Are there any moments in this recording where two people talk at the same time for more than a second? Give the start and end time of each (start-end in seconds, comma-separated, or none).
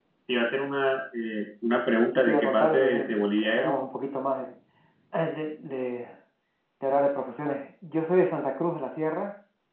2.1-3.8